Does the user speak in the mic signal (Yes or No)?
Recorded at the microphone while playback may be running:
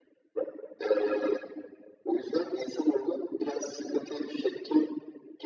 No